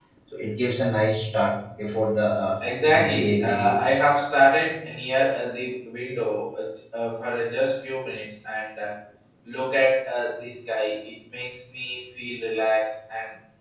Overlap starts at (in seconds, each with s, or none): 2.6 s